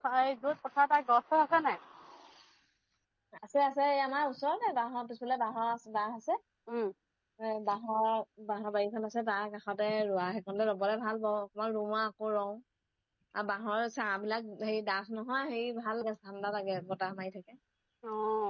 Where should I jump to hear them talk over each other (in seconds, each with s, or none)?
none